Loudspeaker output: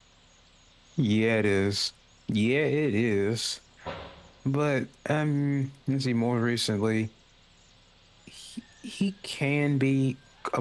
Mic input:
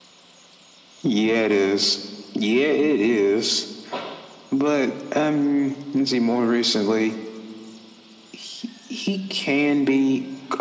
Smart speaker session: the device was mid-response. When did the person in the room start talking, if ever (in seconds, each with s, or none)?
none